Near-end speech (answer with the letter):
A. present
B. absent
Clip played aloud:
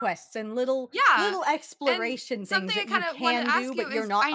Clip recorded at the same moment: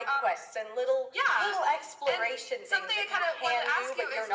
B